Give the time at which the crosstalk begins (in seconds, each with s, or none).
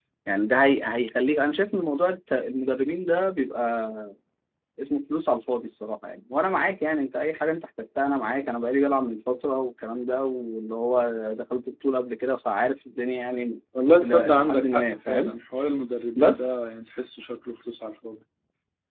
14.0 s